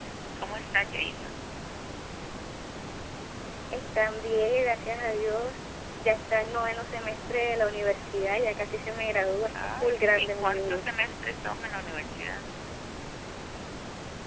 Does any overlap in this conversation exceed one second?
Yes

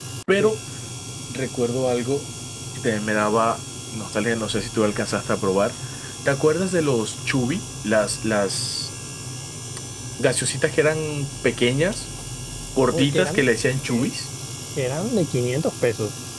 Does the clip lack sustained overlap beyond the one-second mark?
Yes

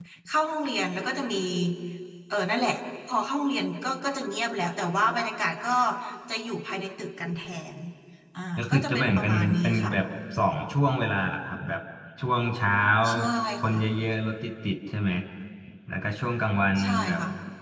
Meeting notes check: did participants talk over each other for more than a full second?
Yes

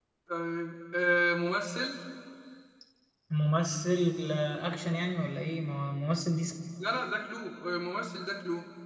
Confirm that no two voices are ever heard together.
Yes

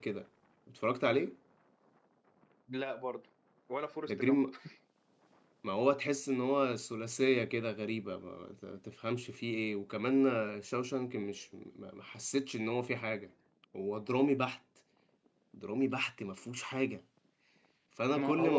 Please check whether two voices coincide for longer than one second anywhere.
No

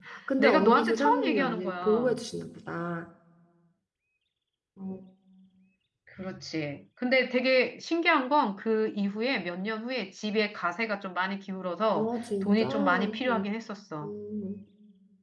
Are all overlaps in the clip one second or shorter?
No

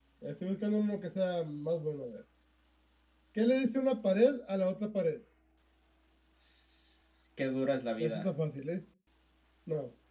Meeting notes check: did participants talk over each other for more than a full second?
No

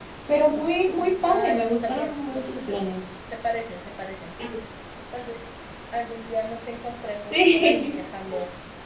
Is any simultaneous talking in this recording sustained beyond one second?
Yes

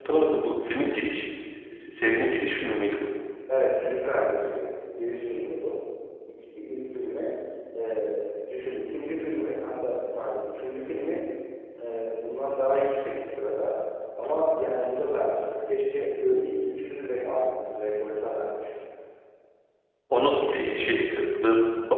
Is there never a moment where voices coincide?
Yes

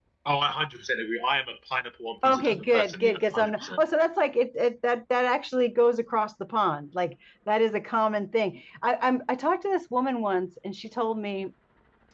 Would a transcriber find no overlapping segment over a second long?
No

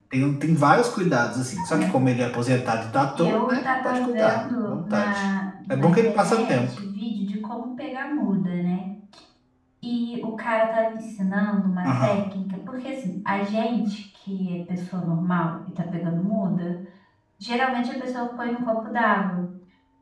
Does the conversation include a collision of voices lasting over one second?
Yes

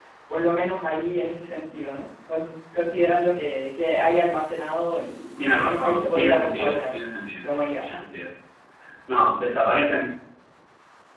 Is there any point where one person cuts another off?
Yes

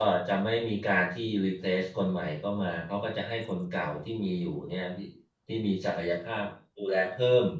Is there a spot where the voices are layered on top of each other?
No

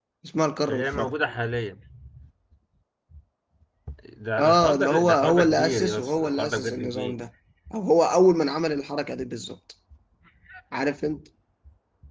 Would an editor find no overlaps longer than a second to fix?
No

